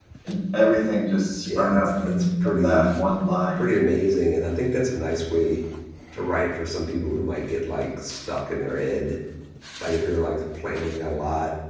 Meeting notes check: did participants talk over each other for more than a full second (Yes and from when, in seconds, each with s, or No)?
Yes, from 1.4 s